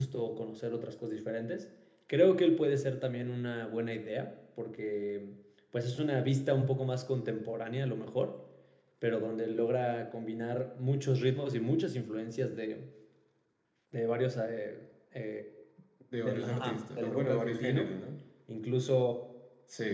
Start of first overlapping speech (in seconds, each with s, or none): 16.2 s